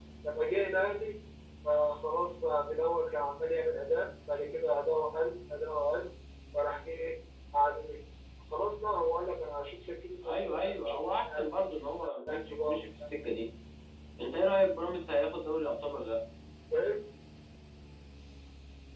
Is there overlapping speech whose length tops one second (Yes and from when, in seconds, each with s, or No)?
Yes, from 10.2 s